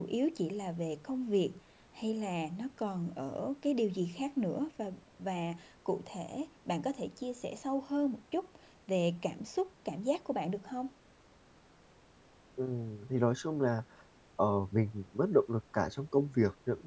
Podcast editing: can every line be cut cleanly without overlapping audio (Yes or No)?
Yes